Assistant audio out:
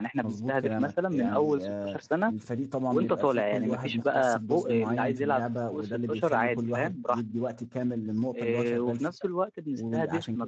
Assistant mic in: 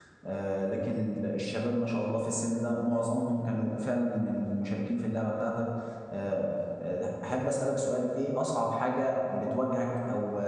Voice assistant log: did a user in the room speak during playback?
Yes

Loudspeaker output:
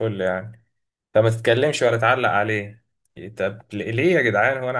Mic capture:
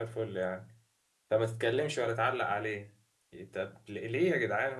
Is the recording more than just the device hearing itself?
No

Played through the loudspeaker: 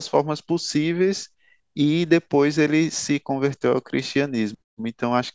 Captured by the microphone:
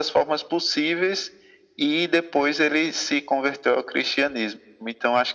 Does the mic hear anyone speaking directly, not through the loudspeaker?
No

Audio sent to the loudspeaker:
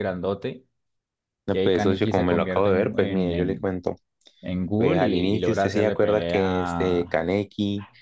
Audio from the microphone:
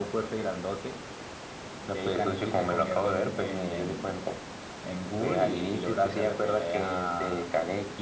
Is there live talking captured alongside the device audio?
No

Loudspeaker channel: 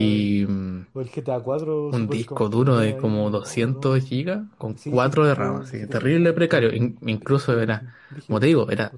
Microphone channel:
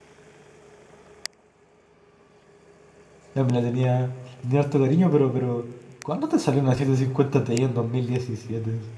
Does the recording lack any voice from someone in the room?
No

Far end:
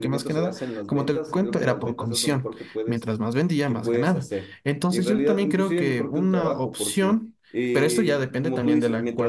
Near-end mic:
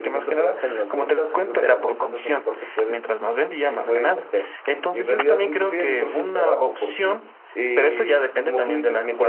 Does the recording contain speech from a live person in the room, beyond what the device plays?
No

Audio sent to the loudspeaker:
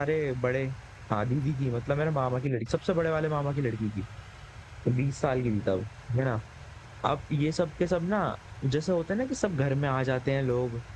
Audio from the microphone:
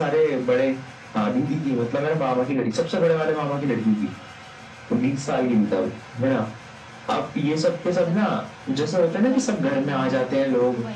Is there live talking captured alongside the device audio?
Yes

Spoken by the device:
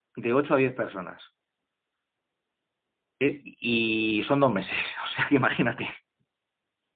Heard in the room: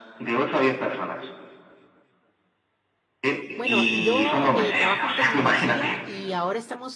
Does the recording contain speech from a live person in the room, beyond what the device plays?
Yes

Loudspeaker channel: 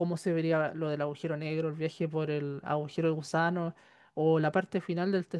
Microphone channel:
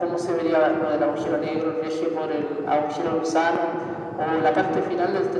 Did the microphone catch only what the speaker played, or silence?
Yes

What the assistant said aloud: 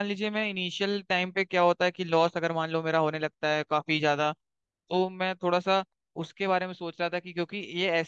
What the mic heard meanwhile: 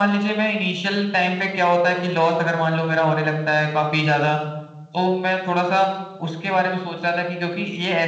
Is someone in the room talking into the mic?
No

